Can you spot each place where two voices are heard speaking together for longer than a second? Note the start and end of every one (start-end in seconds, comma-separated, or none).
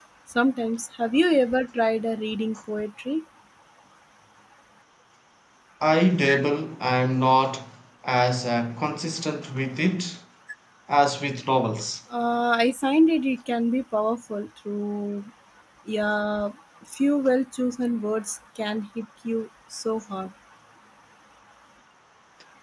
none